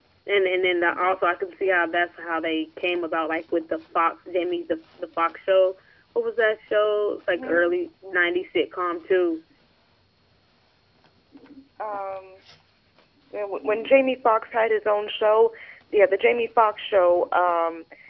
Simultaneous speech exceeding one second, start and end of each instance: none

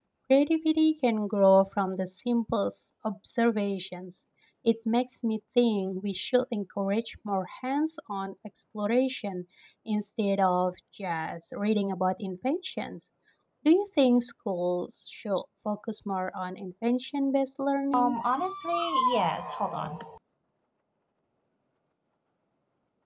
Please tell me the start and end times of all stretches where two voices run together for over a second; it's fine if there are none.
none

